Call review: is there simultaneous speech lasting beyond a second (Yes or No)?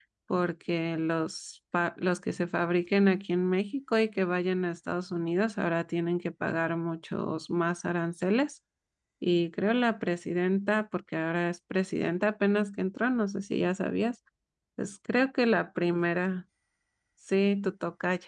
No